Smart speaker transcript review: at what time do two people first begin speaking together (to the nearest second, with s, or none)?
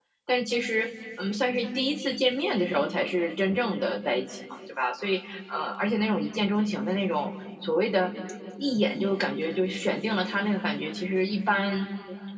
none